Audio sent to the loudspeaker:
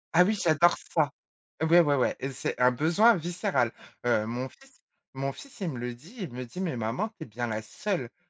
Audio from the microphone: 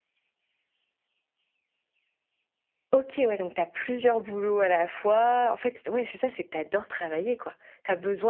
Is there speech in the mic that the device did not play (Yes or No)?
Yes